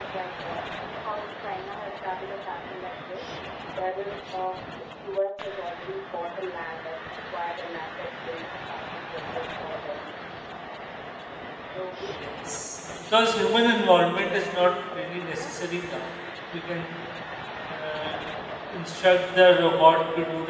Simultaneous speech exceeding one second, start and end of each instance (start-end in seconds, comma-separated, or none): none